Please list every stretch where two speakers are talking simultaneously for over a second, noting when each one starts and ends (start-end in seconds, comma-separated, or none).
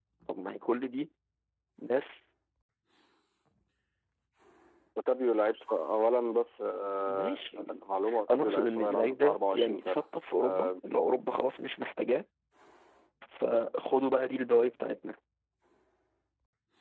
8.3-10.0